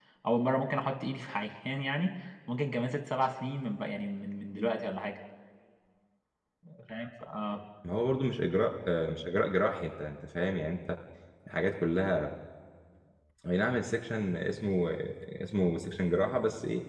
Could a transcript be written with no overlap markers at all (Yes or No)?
Yes